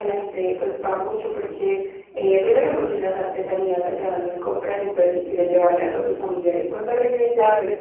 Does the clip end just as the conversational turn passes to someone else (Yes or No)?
Yes